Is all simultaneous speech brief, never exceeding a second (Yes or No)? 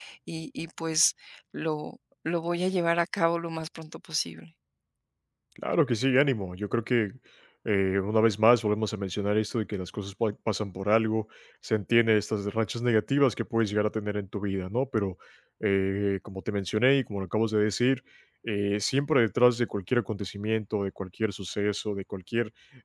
Yes